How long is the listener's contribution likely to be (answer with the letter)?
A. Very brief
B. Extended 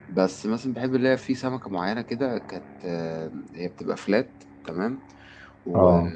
A